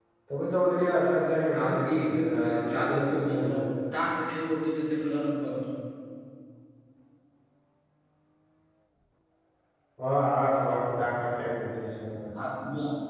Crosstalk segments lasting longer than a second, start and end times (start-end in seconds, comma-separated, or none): 1.6-3.6